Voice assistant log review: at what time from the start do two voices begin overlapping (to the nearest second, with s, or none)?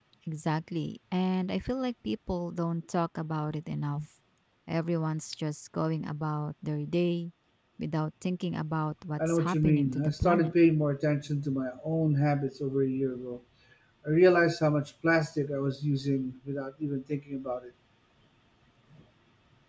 9 s